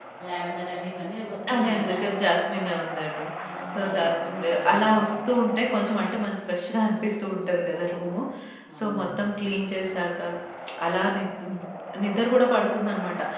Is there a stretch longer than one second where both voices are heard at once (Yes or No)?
No